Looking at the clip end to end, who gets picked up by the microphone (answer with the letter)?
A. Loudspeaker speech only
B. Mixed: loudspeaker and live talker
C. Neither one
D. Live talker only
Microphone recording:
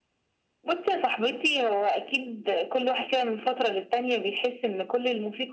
A